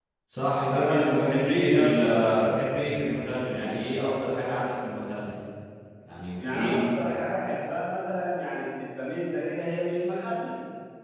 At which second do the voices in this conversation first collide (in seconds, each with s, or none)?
0.7 s